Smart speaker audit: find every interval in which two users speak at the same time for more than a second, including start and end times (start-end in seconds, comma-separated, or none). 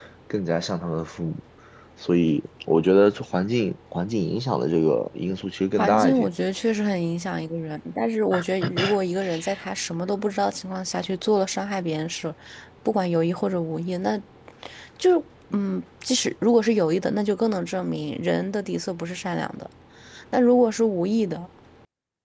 none